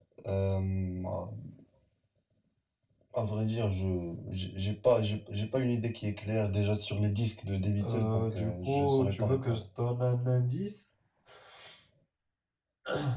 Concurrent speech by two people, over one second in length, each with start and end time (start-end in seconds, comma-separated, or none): 7.8-9.6